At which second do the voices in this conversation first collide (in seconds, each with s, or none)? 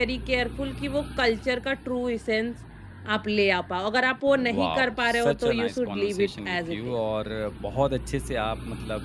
4.6 s